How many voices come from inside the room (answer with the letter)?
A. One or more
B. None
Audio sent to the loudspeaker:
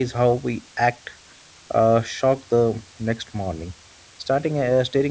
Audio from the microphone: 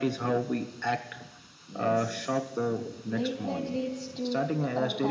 A